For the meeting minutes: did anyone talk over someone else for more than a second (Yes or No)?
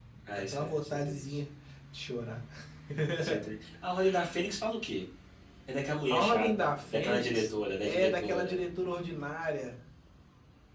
Yes